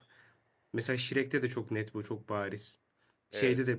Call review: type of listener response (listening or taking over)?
listening